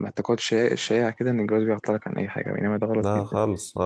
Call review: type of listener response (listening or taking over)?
taking over